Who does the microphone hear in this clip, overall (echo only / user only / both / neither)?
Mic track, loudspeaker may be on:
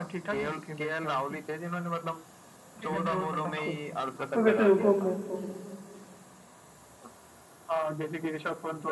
both